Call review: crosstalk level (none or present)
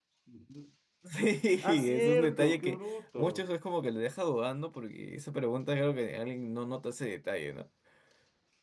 present